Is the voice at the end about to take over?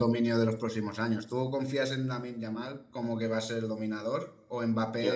No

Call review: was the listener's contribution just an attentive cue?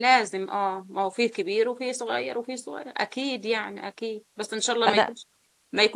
Yes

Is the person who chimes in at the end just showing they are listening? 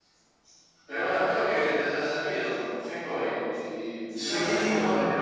No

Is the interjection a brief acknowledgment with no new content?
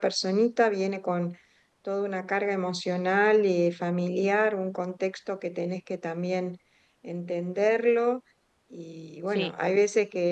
Yes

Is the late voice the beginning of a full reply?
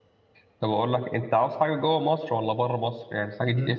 No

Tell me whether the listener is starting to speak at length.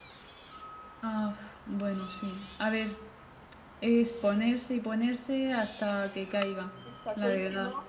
Yes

